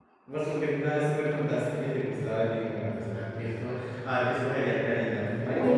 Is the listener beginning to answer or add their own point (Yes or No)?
Yes